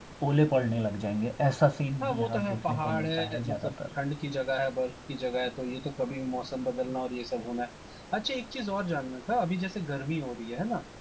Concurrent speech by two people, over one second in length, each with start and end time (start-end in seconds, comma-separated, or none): 2.0-3.7